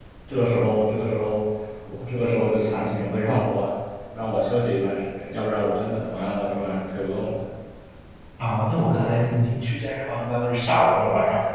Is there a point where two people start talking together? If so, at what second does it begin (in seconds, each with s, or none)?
none